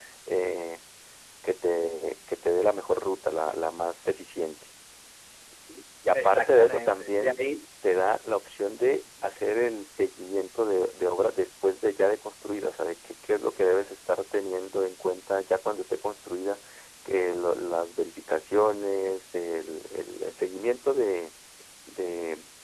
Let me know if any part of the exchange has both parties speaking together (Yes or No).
Yes